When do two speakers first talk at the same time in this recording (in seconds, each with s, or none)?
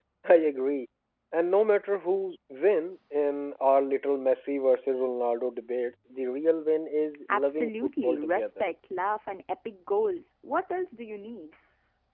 7.3 s